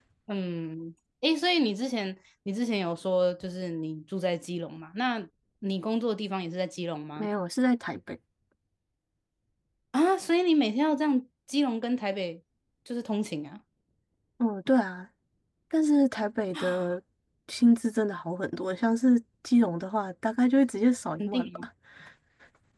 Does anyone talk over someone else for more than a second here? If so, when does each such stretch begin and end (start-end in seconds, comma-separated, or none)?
none